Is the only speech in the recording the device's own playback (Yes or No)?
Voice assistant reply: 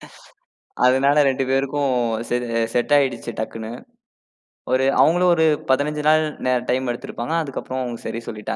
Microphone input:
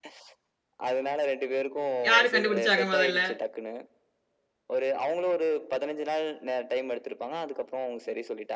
No